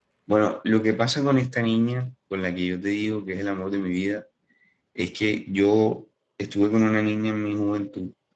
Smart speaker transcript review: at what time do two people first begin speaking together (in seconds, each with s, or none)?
none